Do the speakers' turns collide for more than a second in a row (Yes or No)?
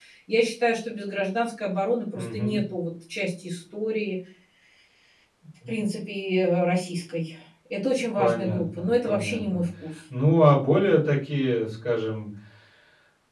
Yes